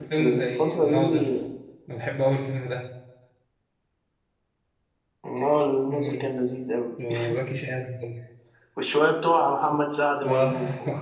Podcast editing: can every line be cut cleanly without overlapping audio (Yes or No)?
No